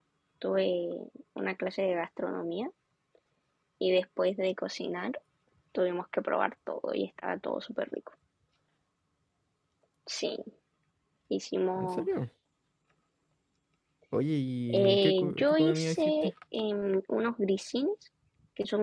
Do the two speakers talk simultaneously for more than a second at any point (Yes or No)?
Yes